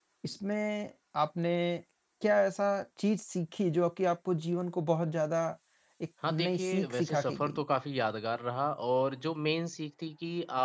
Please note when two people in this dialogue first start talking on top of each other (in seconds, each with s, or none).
6.3 s